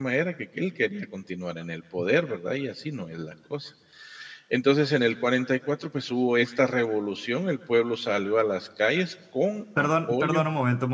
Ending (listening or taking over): taking over